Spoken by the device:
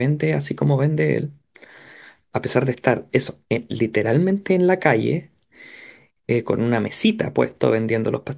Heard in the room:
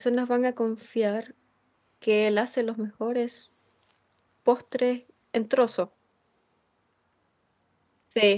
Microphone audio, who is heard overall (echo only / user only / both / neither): user only